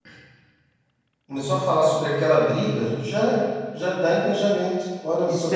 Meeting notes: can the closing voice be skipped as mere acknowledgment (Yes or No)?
No